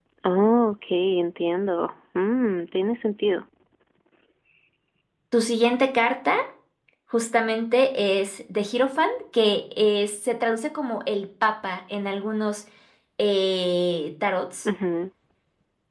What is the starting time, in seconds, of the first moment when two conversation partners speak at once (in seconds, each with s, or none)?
none